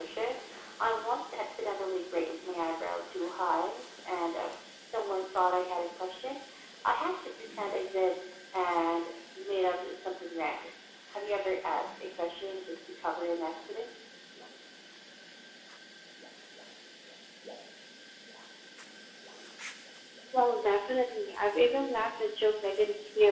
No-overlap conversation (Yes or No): Yes